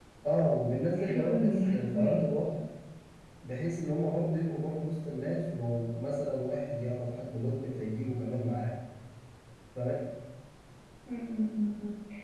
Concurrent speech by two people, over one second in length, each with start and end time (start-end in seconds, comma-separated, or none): 0.9-2.2